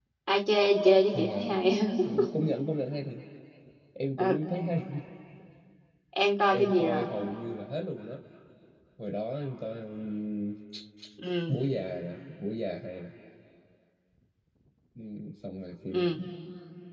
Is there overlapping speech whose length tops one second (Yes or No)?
No